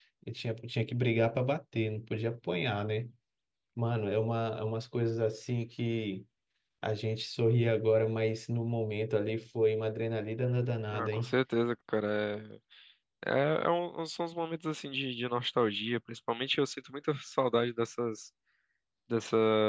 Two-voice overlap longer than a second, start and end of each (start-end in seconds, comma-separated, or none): none